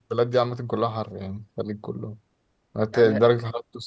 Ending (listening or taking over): listening